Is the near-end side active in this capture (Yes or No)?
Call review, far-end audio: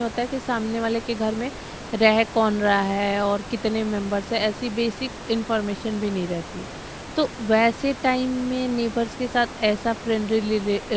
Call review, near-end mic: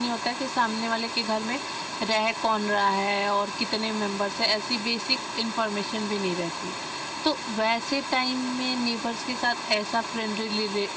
No